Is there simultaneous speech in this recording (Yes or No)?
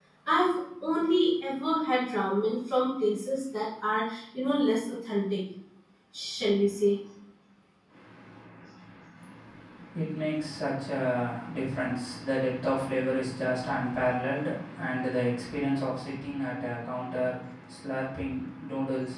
No